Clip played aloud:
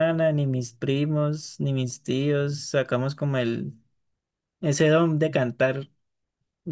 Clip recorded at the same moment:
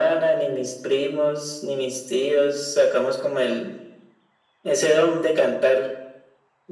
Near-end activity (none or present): none